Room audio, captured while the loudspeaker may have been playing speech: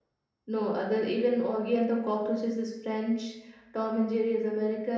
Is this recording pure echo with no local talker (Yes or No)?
No